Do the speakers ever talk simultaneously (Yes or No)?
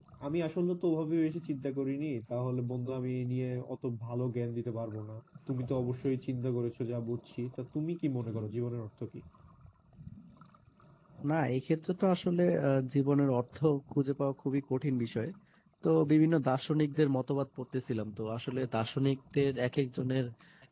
No